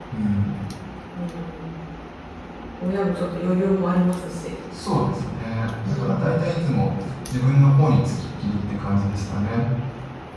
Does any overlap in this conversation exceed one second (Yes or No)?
No